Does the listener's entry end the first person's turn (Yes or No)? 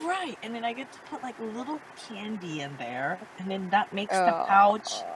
No